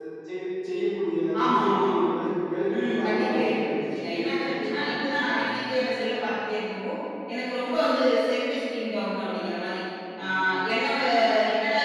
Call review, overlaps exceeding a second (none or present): present